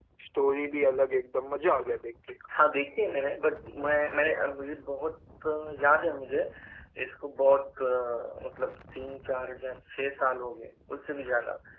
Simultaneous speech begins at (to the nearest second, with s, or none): none